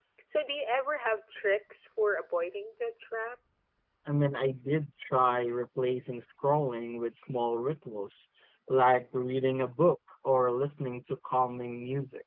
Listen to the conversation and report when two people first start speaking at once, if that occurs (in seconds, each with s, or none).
none